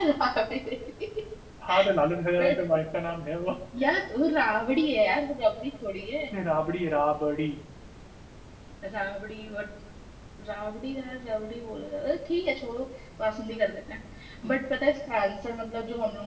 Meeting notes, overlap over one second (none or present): none